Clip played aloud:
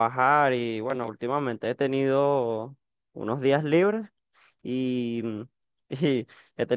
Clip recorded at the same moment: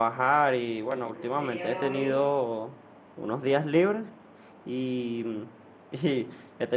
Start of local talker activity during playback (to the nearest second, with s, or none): 1 s